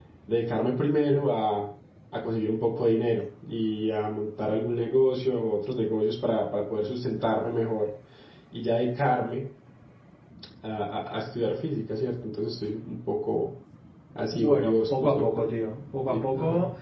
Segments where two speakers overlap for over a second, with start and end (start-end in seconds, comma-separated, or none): 14.2-15.4